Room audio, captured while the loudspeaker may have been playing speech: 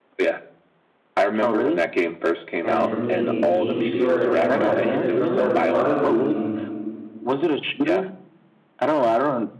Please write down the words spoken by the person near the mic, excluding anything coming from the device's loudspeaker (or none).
and for me, a game story that kinda resonated from that would probably be